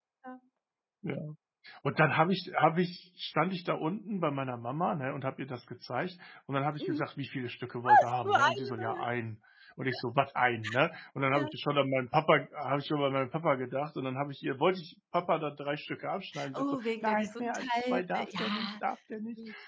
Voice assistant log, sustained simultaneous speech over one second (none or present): present